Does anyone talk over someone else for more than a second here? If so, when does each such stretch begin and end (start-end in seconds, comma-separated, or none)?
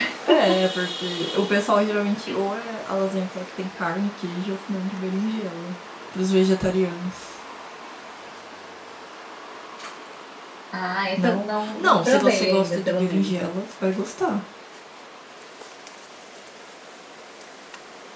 11.2-13.3